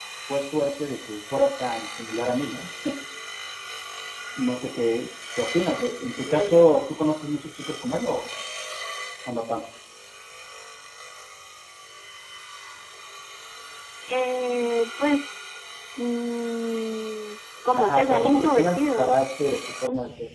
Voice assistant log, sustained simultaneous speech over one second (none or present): present